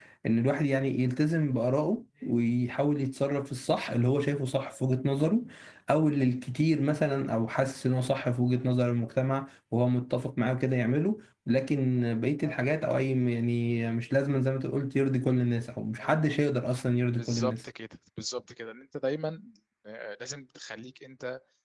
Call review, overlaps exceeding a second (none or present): none